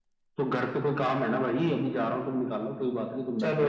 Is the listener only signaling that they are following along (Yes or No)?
No